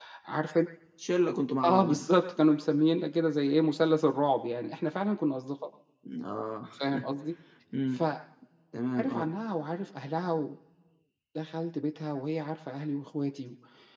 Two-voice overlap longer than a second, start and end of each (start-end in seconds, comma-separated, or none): none